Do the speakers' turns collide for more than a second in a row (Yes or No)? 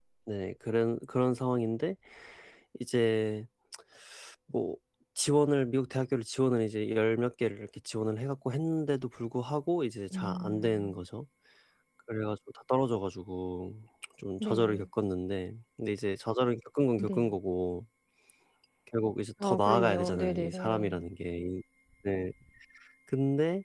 Yes